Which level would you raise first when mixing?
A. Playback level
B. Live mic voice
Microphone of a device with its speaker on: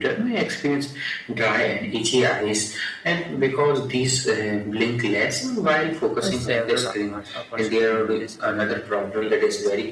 B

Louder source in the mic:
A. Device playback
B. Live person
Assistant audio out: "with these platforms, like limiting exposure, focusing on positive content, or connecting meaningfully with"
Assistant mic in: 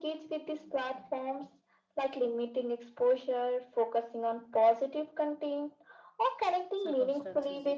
A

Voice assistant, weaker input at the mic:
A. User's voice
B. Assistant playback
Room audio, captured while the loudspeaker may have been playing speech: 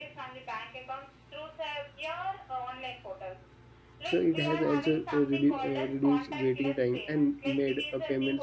B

